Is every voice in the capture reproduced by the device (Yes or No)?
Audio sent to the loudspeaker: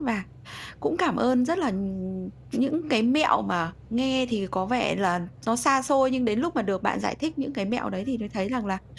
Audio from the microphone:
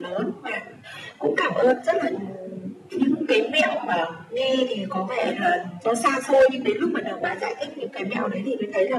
Yes